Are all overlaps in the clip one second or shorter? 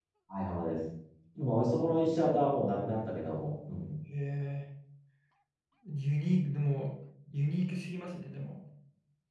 Yes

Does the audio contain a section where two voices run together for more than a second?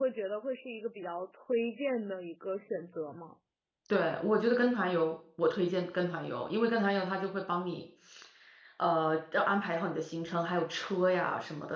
No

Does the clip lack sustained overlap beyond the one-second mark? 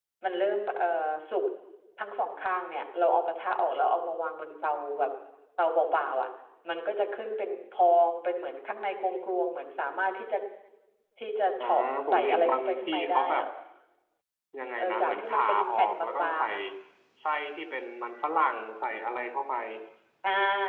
No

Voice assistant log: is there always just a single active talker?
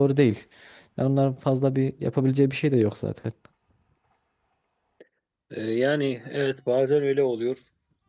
Yes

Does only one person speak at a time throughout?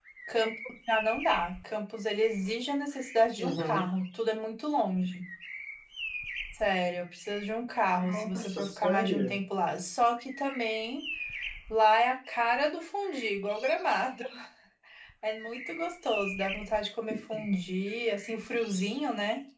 No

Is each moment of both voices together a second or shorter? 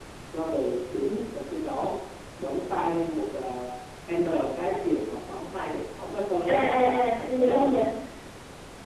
No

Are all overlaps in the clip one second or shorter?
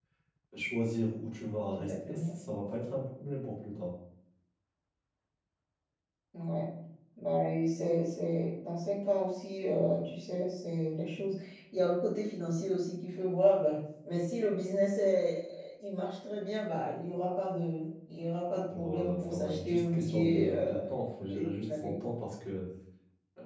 No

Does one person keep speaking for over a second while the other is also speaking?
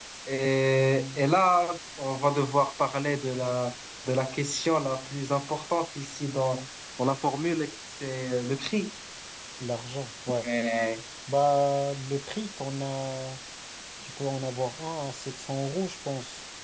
No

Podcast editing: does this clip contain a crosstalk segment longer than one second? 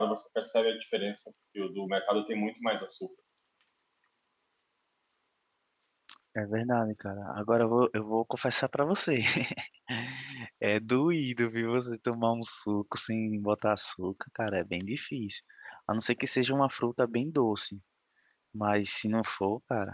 No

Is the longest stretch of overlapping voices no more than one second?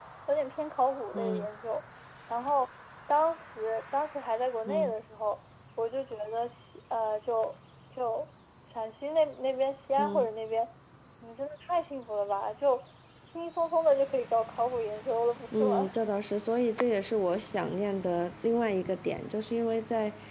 Yes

